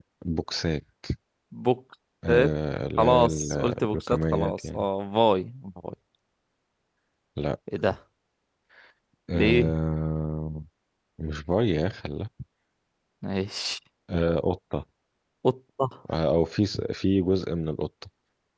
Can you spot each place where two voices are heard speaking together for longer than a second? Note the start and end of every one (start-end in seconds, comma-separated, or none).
3.0-4.9